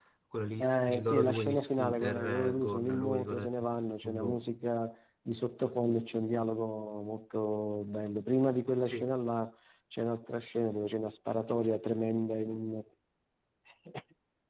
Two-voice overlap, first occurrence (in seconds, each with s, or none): 0.6 s